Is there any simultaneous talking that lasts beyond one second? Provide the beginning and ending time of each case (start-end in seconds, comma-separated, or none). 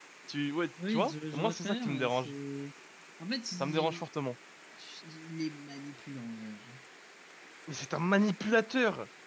0.9-2.3